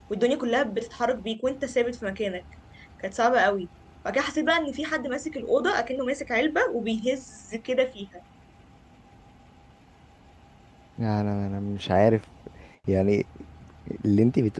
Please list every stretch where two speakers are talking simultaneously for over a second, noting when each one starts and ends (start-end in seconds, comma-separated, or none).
none